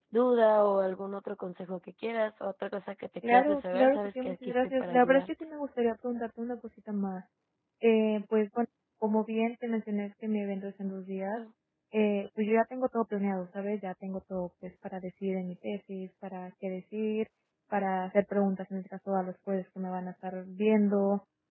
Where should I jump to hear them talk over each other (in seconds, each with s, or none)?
3.2 s